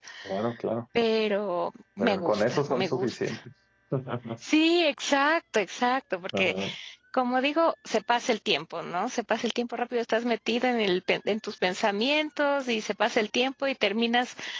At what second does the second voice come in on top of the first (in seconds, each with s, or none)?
2.0 s